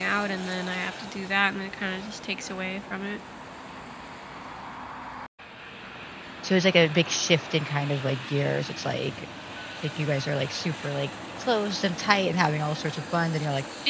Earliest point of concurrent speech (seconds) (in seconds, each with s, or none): none